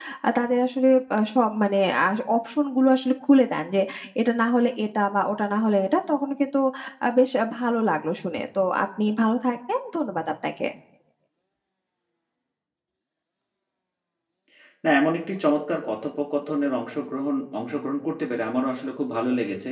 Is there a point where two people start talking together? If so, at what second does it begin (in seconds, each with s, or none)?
none